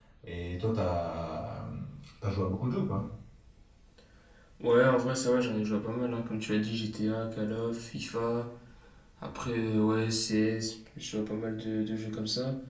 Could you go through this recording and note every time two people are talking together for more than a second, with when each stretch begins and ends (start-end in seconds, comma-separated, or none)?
none